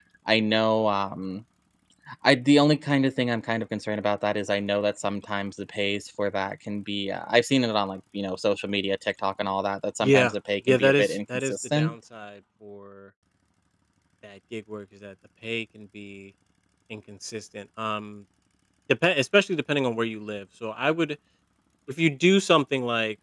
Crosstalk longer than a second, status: present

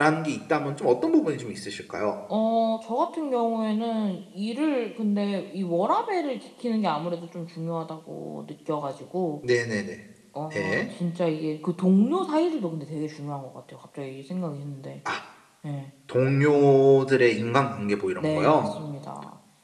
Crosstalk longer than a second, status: none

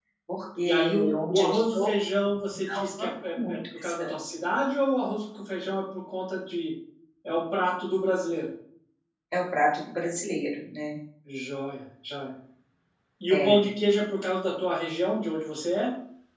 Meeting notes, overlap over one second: present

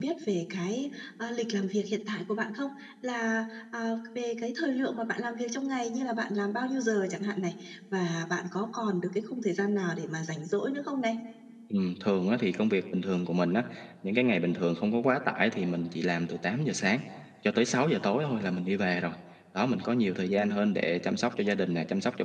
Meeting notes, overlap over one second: none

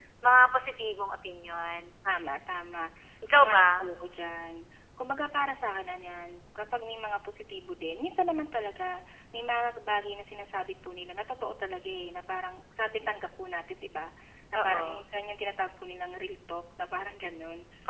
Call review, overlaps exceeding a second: none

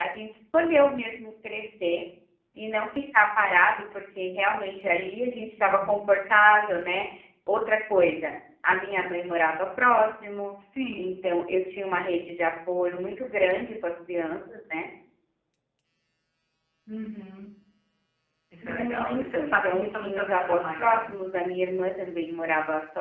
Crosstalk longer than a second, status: present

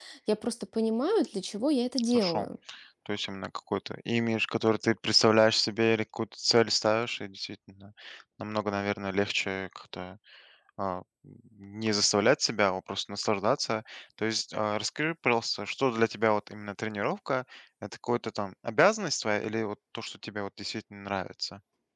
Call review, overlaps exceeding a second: none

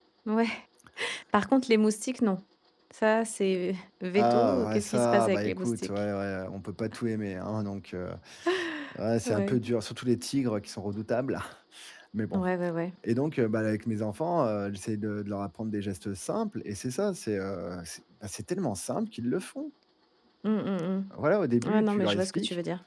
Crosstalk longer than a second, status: present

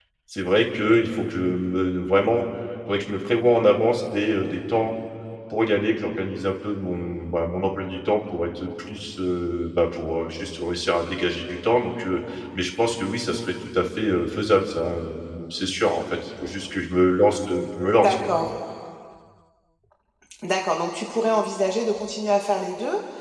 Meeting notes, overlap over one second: none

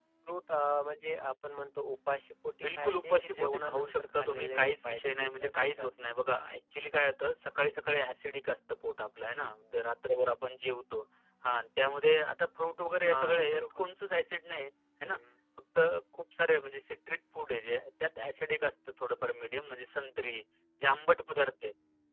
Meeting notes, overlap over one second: present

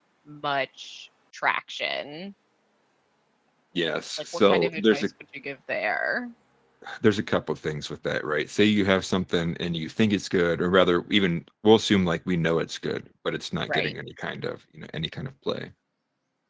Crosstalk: present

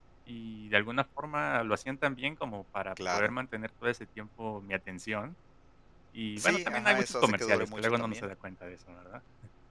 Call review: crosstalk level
present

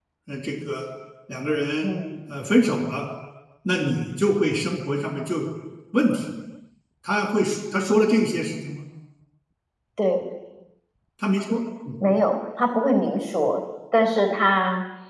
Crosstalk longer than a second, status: none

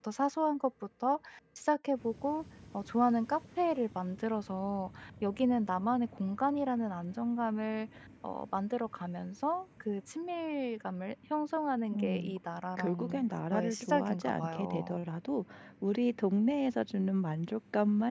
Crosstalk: present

